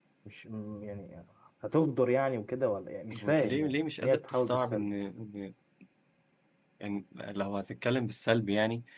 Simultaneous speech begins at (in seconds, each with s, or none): 3.1 s